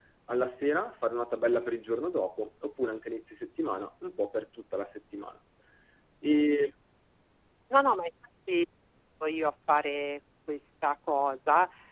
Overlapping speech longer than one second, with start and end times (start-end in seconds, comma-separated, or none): none